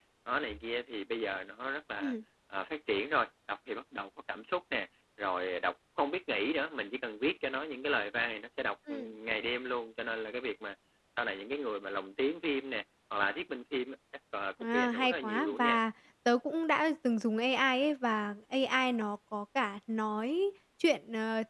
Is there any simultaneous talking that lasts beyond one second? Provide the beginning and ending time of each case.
14.6-15.8

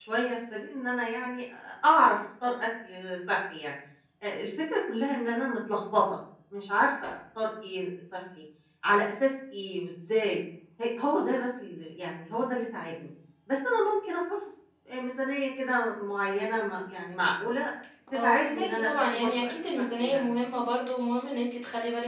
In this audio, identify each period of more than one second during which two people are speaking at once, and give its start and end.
18.1-20.2

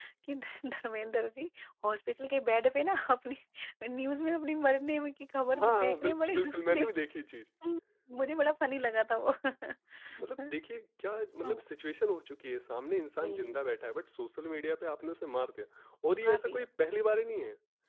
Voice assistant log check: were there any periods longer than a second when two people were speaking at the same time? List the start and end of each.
5.6-6.9

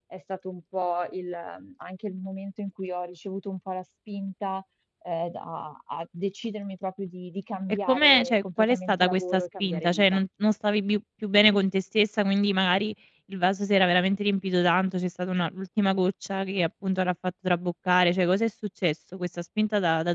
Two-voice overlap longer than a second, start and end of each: 7.9-10.2

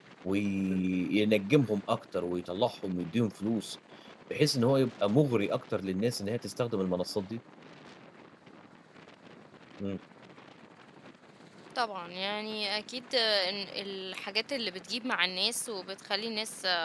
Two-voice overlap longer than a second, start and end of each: none

